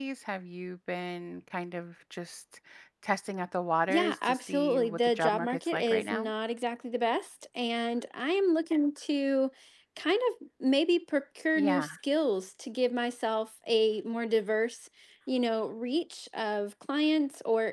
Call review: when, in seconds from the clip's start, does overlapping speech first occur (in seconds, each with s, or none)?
3.9 s